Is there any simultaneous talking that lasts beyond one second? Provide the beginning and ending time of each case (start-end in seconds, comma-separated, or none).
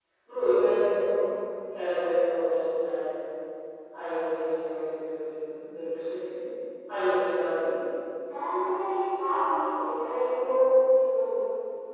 none